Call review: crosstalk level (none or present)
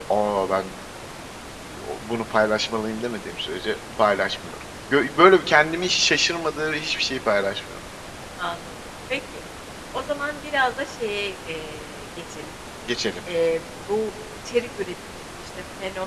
none